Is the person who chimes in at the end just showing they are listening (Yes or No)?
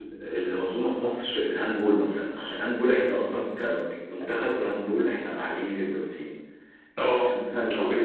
Yes